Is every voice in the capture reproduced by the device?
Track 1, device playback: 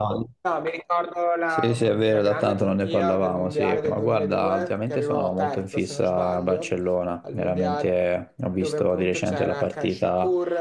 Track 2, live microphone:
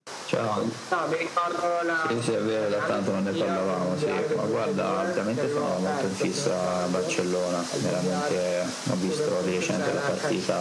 Yes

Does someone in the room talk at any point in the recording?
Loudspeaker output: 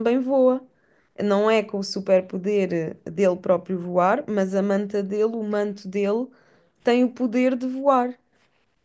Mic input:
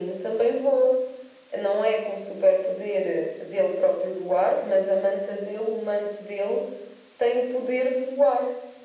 No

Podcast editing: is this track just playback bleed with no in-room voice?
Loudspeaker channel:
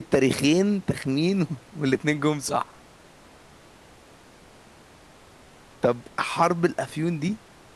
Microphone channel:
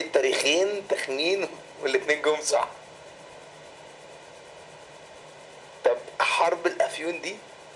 Yes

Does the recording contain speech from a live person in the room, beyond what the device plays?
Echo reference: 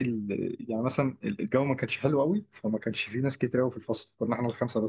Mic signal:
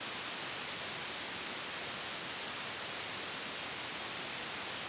No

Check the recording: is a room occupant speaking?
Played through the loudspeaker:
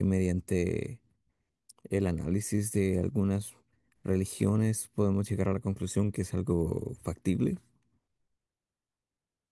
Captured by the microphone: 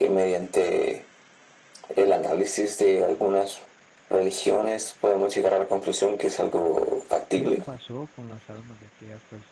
Yes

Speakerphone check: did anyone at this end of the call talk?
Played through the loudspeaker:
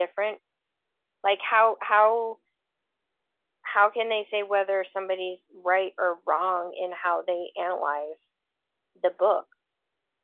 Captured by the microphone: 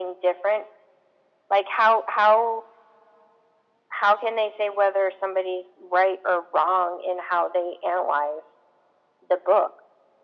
No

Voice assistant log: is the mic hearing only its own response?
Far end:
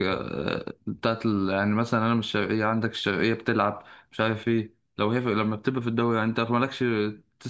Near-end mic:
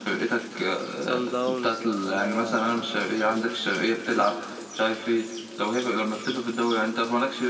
No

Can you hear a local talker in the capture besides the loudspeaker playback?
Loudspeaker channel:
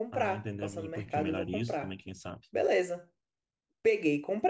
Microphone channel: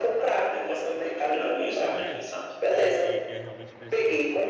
Yes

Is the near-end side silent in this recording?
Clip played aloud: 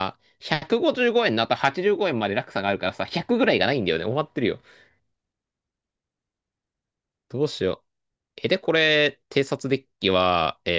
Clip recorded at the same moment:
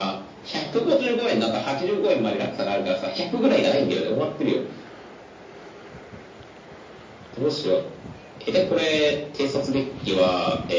Yes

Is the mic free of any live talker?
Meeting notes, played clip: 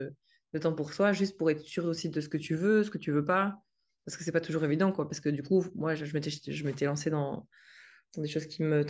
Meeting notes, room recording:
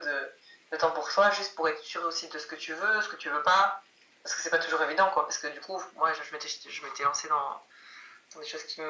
Yes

